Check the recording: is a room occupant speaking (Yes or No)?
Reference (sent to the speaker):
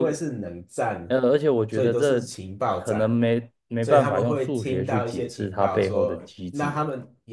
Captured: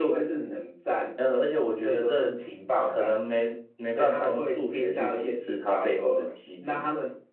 No